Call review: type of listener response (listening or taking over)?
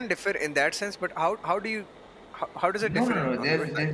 taking over